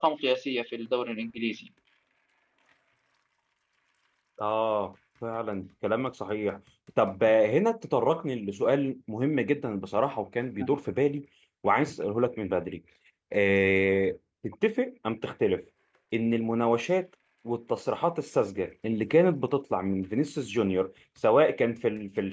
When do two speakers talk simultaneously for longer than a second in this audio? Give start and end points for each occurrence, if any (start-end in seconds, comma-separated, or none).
none